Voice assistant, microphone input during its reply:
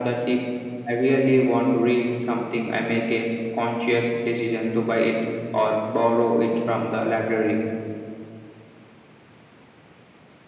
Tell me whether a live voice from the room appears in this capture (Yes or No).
No